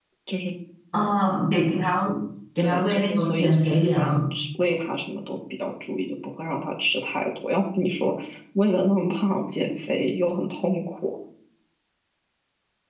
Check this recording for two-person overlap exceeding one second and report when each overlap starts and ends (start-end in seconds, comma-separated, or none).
2.6-4.2